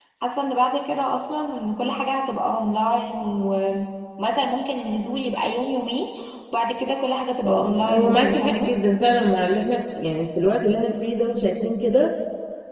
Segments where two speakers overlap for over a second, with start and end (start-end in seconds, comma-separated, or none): 7.4-8.7